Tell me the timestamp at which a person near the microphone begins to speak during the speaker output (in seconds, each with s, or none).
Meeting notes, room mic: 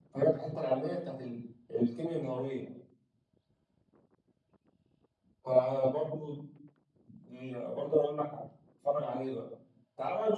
none